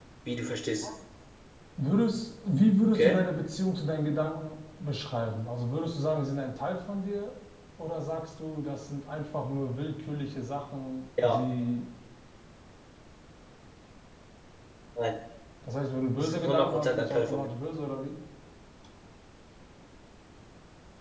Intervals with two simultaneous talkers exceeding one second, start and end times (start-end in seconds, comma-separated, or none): 16.2-17.5